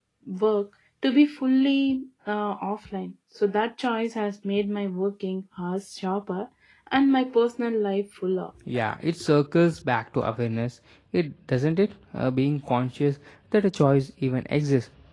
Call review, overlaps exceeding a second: none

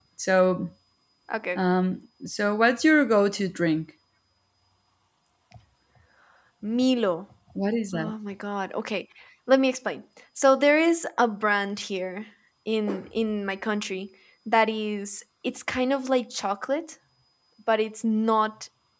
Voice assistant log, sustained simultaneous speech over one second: none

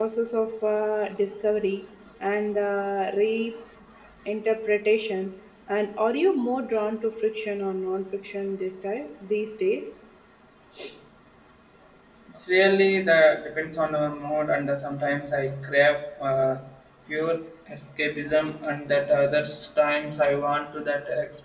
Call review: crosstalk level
none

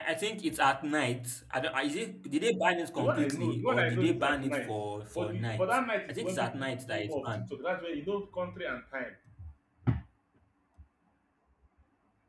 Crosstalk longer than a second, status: present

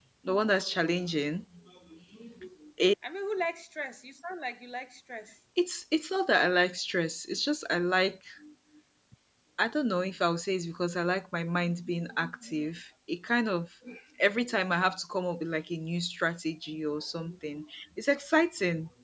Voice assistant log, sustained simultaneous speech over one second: none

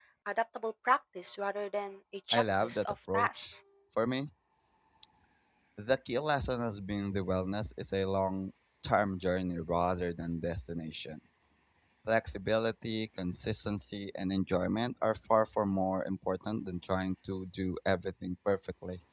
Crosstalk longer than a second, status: present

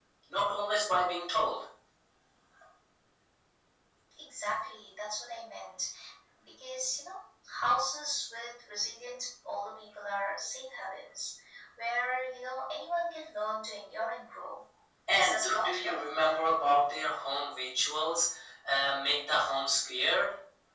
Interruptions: present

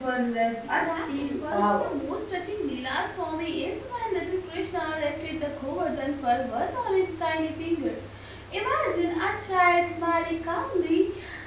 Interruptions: present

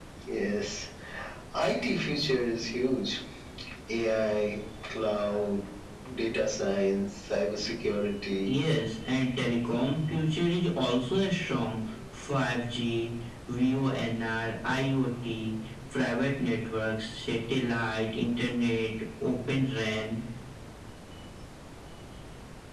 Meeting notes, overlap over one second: none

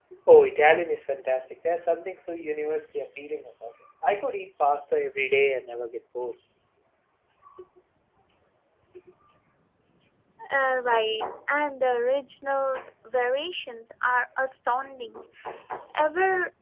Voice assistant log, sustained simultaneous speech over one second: none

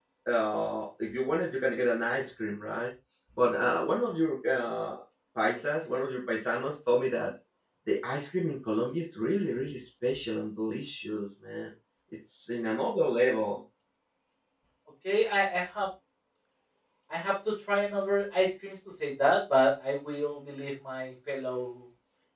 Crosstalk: none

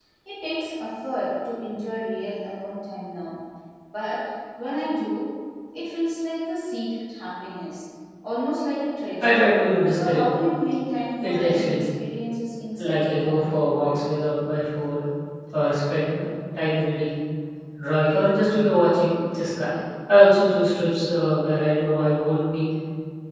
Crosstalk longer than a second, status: present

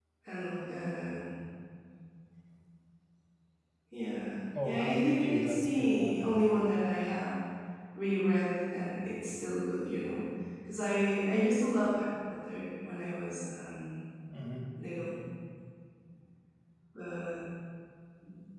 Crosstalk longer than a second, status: present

